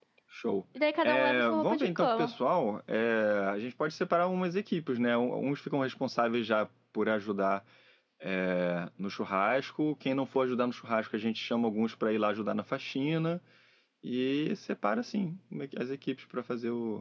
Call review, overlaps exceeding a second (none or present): present